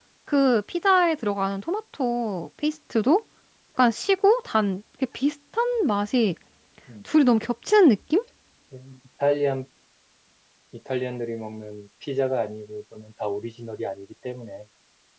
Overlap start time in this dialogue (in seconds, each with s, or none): none